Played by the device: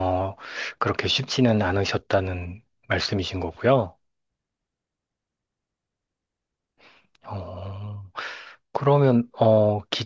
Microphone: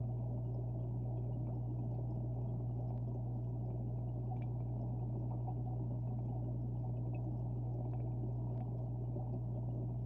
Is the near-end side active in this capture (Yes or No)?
No